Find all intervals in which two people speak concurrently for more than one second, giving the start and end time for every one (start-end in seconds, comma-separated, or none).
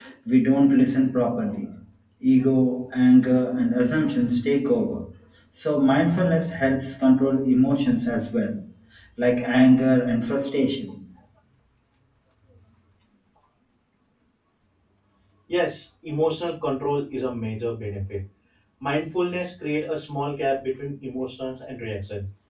none